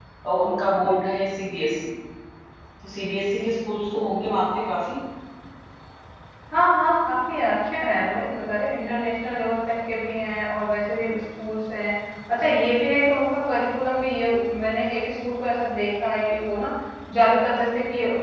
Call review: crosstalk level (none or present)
none